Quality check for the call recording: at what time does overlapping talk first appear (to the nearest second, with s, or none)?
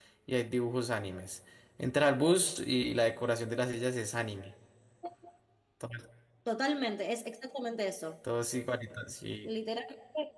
none